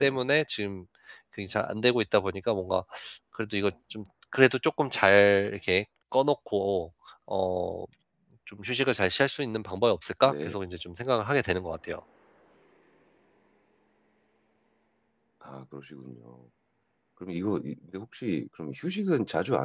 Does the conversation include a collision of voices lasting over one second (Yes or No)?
No